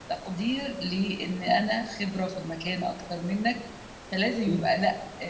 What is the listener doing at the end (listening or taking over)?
listening